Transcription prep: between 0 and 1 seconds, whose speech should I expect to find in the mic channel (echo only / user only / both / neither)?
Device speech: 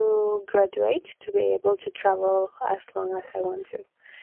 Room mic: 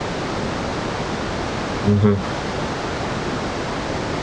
neither